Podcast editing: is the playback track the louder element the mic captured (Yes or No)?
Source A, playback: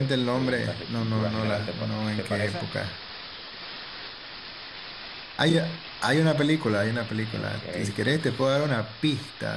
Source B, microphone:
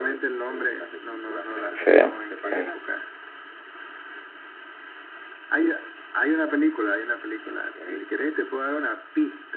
No